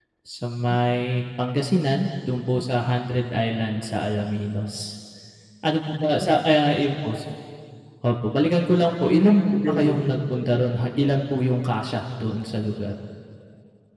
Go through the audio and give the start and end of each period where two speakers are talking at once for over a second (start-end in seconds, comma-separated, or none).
8.8-10.4